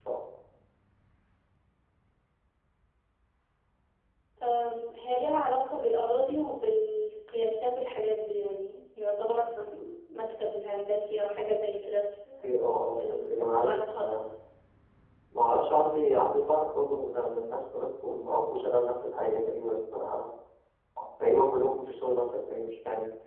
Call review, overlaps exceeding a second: present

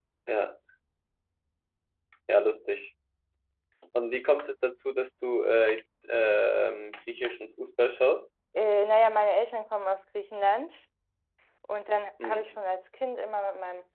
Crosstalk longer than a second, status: none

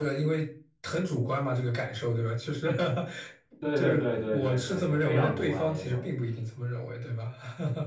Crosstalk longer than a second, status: present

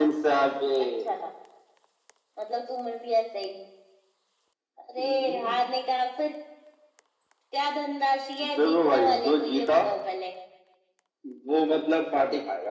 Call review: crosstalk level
present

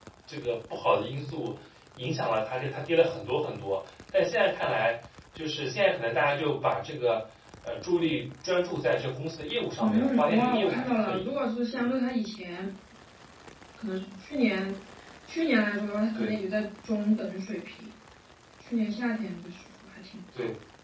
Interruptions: present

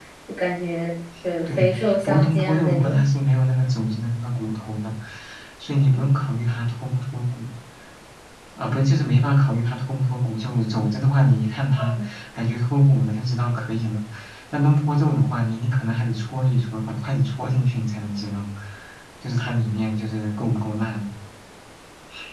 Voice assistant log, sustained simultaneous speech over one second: present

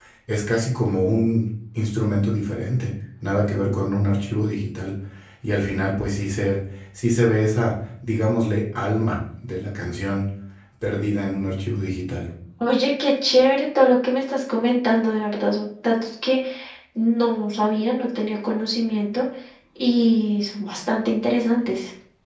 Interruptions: none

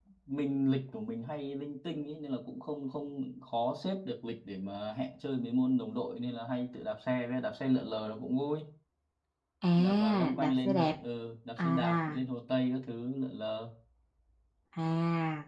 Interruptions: present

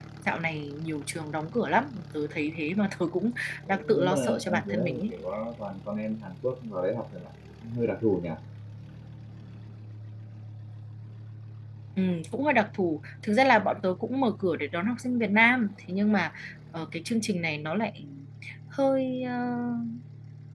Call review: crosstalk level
present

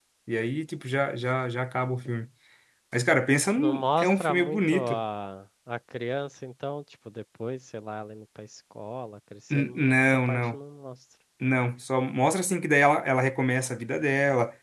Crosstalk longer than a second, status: present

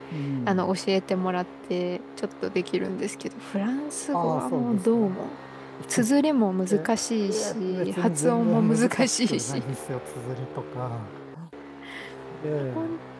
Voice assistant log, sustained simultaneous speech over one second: present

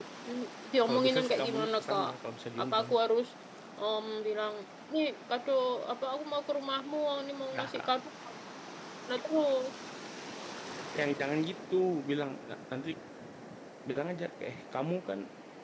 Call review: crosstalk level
present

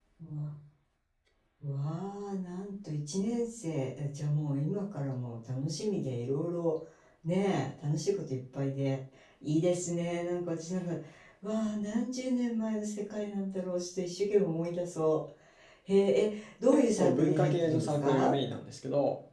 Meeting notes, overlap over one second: present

